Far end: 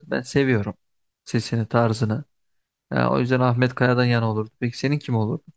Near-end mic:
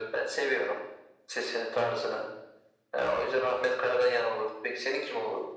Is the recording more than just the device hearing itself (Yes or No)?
No